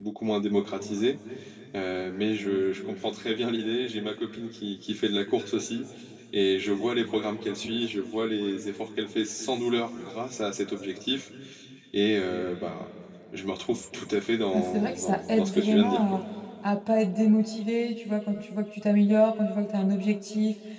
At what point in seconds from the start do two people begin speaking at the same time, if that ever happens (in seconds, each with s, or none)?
14.5 s